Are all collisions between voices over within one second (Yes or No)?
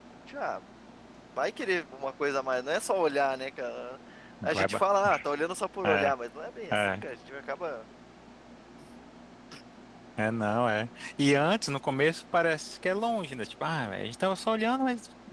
Yes